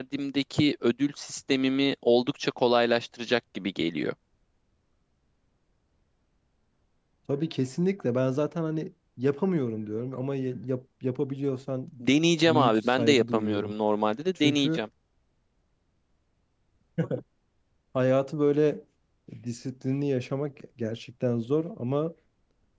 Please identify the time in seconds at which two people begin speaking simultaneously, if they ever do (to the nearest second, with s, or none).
12 s